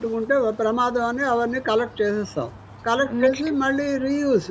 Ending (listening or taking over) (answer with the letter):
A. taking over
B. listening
B